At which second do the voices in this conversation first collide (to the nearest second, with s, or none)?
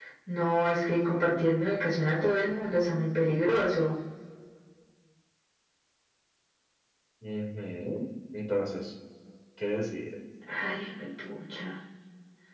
none